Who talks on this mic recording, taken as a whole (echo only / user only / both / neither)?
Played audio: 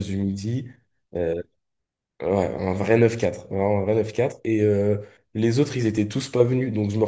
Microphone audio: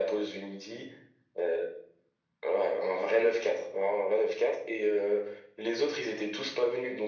echo only